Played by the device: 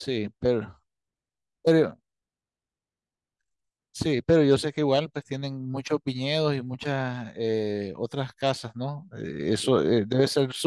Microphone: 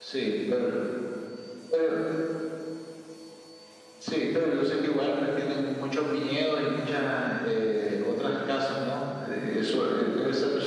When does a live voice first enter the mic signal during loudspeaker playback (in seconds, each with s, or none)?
none